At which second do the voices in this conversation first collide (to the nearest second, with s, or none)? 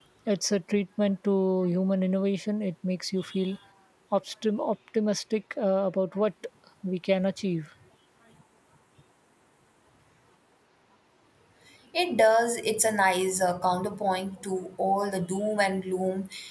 none